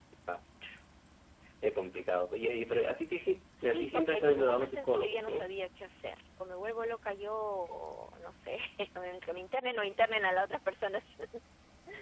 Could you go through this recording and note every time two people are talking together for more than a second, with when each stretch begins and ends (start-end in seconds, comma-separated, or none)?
3.6-5.5